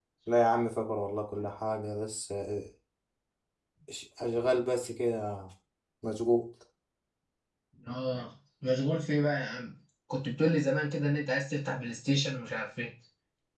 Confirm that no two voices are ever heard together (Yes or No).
Yes